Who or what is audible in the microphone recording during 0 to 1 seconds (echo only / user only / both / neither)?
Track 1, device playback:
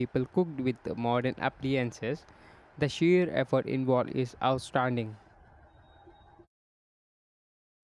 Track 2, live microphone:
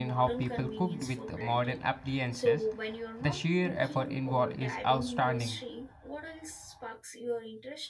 both